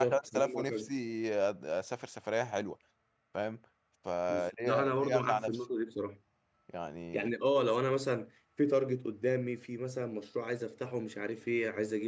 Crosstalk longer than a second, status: present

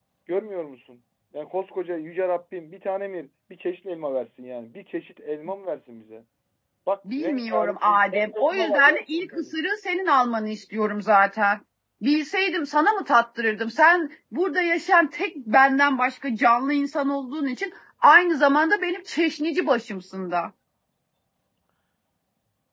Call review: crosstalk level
present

